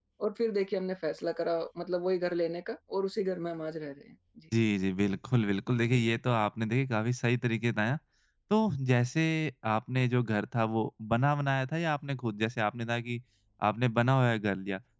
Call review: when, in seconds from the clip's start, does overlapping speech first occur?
none

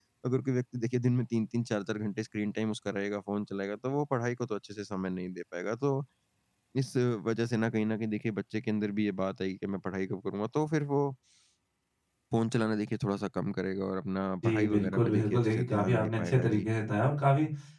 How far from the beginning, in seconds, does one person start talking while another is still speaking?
14.4 s

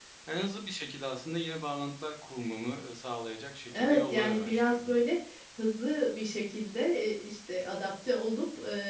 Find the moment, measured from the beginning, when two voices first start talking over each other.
3.7 s

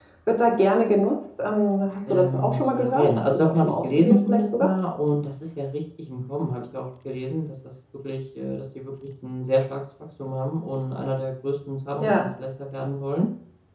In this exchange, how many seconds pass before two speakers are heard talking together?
2.1 s

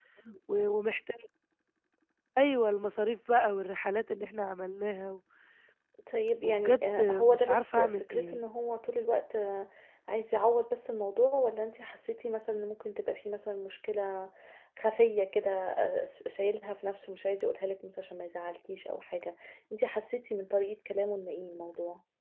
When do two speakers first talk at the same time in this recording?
6.4 s

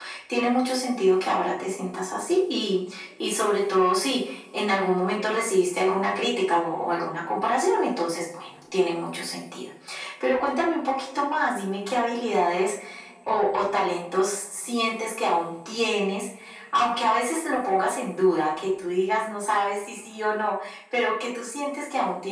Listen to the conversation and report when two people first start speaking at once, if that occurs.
none

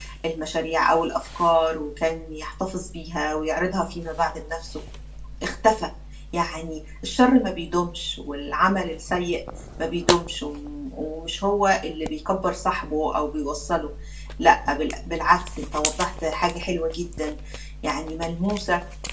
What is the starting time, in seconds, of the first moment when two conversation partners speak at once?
none

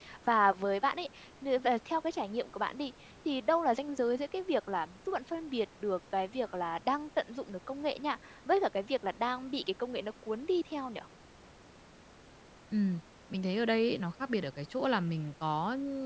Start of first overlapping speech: none

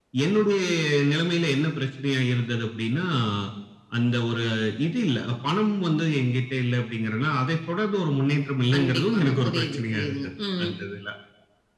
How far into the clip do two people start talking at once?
8.7 s

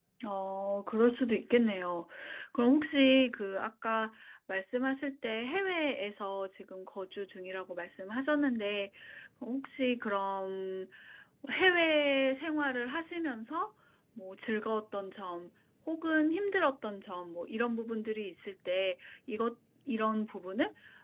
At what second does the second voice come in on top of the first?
none

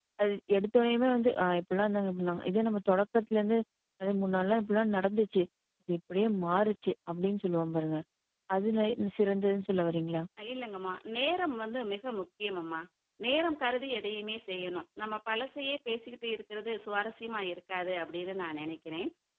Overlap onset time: none

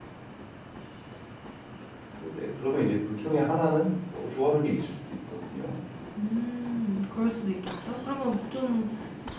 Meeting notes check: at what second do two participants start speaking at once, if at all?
none

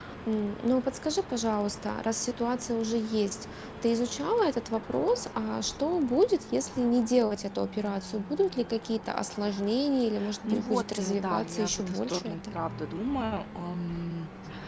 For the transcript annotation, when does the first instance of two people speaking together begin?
10.5 s

